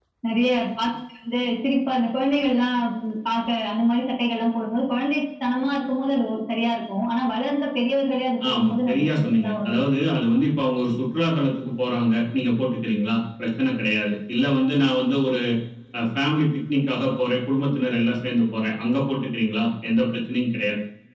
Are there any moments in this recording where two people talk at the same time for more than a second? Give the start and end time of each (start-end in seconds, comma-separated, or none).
8.5-9.8